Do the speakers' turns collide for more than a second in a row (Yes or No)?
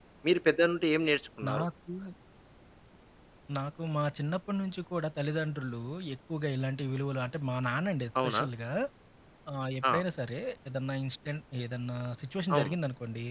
No